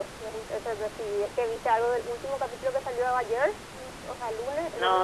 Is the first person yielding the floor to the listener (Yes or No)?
Yes